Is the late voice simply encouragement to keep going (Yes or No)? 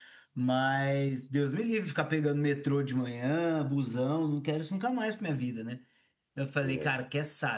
Yes